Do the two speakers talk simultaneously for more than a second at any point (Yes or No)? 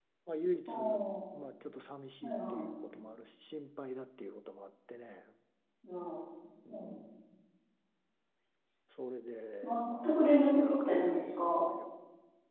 Yes